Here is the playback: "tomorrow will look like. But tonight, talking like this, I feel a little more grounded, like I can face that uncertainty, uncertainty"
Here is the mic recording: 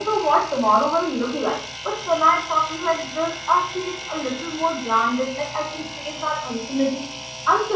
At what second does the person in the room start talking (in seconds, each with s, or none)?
none